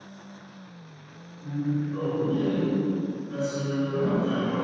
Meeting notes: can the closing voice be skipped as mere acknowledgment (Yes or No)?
Yes